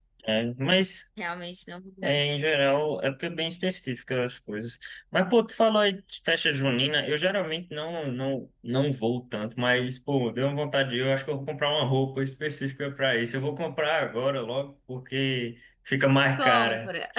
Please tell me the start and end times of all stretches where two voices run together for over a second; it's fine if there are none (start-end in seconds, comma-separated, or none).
none